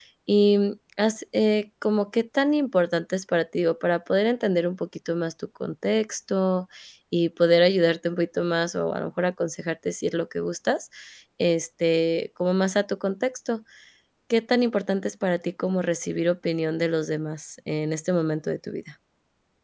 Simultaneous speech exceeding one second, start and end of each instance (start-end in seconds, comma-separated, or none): none